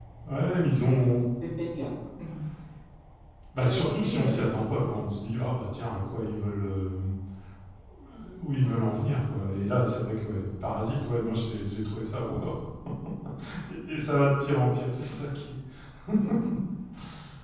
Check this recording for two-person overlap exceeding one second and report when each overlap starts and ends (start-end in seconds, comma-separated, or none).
3.6-5.0